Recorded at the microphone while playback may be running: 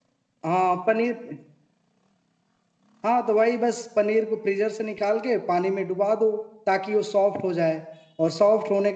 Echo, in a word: none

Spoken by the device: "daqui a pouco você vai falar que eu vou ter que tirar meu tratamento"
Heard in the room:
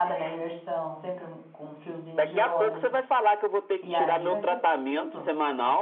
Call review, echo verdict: present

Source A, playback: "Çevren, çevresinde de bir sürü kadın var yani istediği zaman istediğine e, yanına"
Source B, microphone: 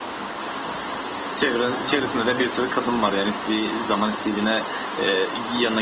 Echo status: present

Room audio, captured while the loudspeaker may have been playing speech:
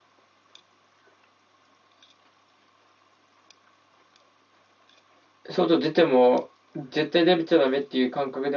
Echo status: none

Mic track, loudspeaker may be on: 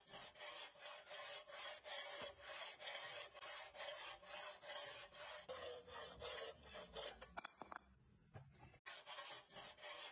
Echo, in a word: none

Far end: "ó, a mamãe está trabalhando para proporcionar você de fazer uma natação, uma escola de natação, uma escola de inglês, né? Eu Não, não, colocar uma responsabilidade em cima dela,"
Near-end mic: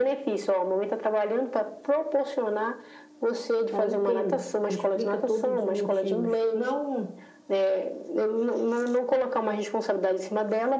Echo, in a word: present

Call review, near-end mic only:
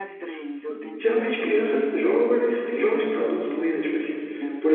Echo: present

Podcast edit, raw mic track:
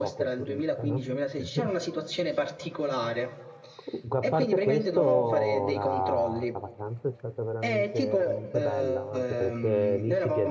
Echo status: present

